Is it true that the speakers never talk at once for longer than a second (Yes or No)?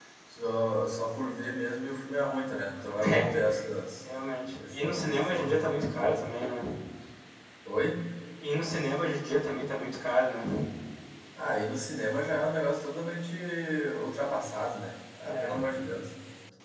No